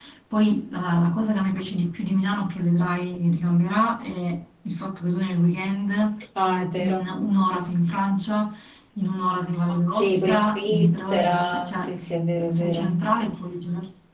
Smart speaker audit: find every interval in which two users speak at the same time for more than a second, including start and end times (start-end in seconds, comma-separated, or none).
9.9-11.9